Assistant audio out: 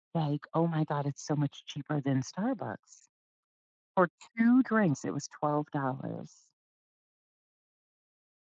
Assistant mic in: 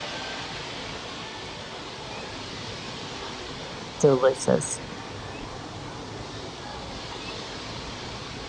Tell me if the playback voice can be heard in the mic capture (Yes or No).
No